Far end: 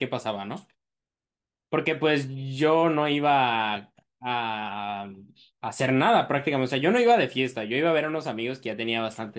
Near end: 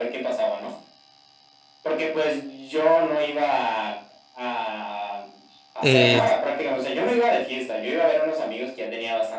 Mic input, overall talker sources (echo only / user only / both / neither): both